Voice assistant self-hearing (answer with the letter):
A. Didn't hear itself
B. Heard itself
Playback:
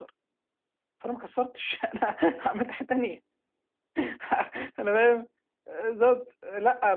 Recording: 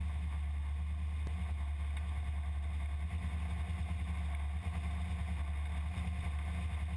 A